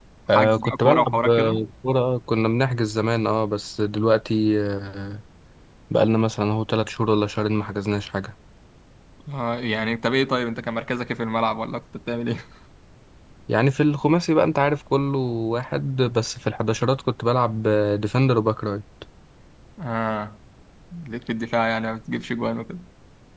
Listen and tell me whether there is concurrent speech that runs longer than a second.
Yes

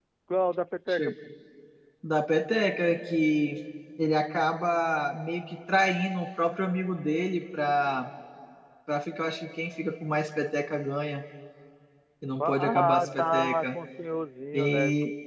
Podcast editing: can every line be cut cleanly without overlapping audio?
No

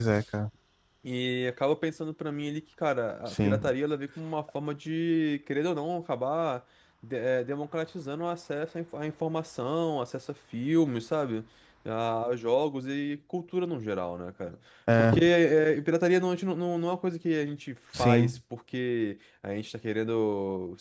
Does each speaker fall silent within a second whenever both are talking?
Yes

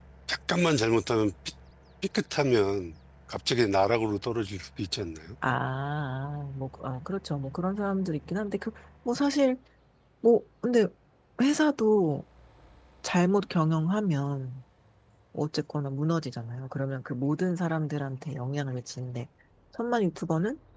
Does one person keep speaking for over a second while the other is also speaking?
No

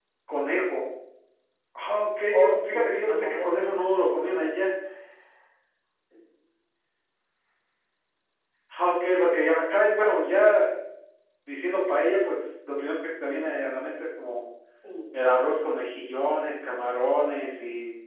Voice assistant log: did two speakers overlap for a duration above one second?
Yes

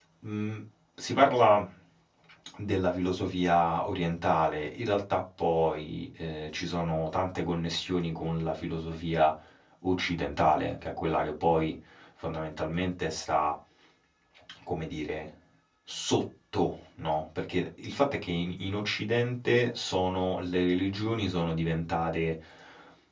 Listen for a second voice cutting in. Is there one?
No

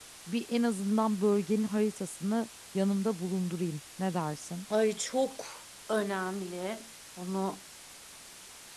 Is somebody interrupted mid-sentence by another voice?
No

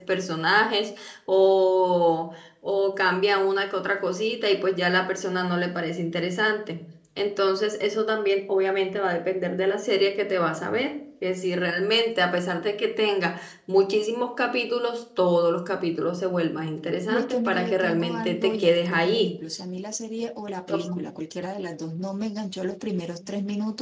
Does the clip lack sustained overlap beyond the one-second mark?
No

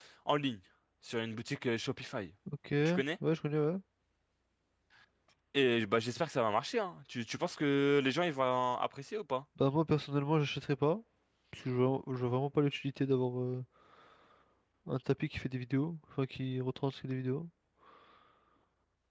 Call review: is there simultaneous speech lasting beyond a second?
No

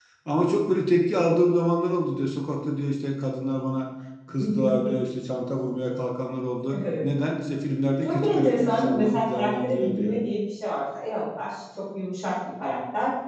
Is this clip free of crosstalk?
No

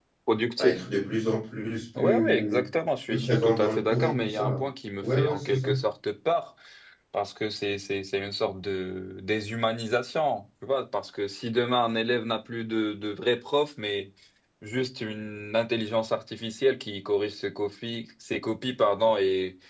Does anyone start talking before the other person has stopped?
Yes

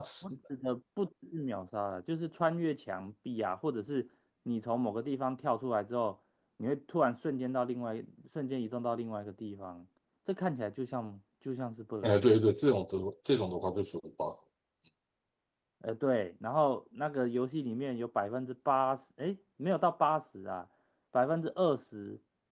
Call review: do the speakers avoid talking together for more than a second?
Yes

